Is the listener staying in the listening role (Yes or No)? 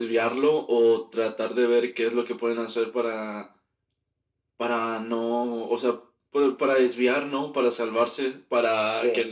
Yes